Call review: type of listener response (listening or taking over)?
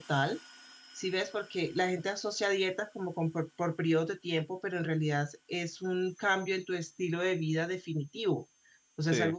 listening